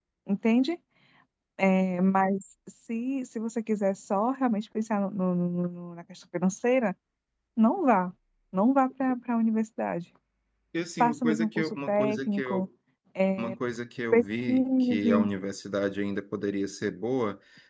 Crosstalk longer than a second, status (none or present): present